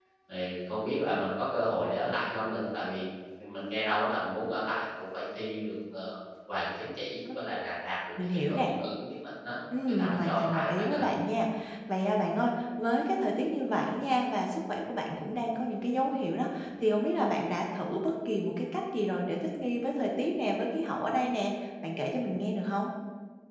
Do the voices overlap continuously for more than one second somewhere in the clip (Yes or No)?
Yes